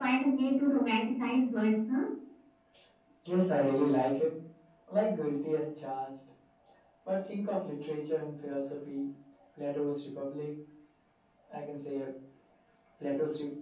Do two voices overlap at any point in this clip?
No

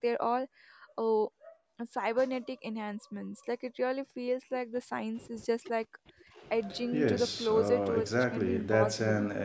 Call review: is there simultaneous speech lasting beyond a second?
Yes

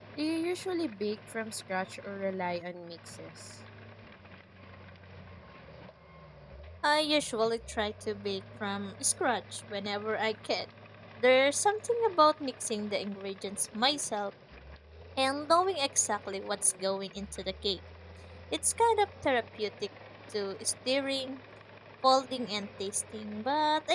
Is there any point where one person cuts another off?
No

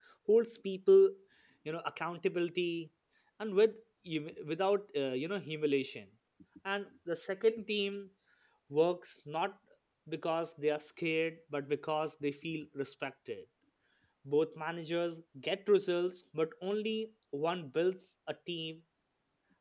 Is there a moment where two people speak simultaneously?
No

